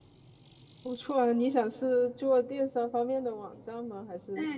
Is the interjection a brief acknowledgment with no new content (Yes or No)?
No